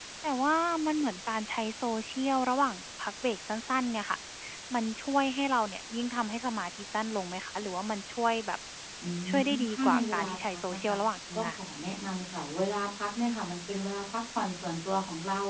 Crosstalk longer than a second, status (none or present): present